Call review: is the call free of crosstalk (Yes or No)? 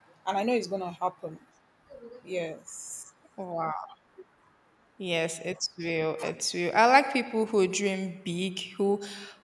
Yes